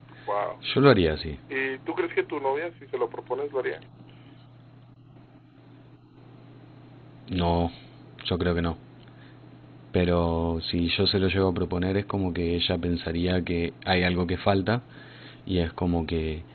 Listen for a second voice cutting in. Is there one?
No

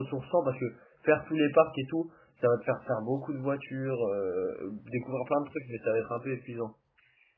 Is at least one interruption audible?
No

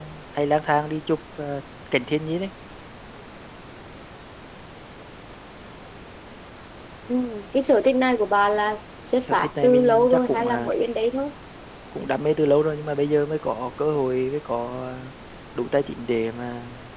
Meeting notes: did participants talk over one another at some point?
Yes, from 9.3 s

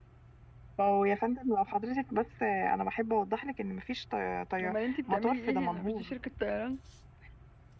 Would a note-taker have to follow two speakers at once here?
Yes, from 4.6 s

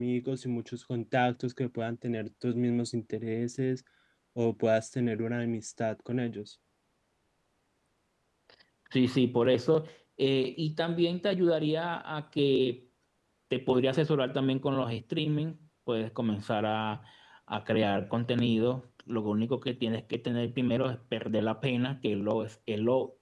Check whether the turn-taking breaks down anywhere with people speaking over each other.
No

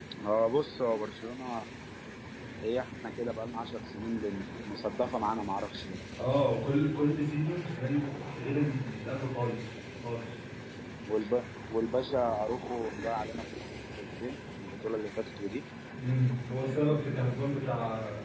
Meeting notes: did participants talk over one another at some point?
No

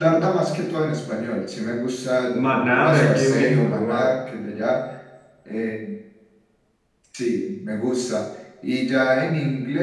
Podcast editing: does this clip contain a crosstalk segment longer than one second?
Yes, from 2.4 s

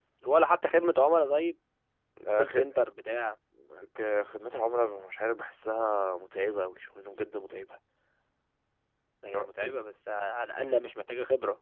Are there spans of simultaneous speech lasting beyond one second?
No

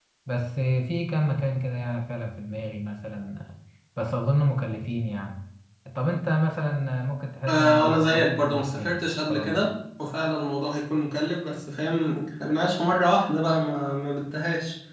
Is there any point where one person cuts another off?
Yes, from 7.5 s

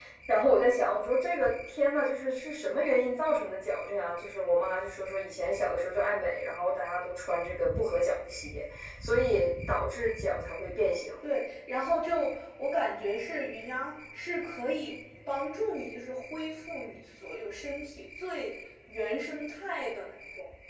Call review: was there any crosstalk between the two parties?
No

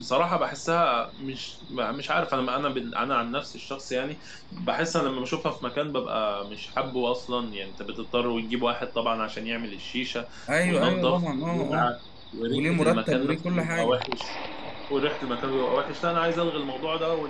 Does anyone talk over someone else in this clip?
Yes, from 10.7 s

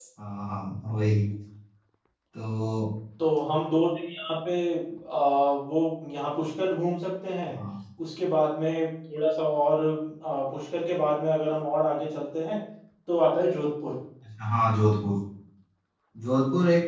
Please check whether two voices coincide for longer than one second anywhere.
No

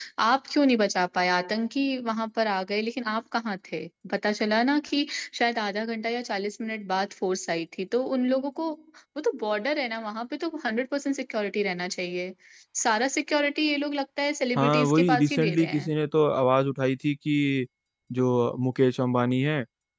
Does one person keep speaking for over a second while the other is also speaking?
Yes, from 14.6 s

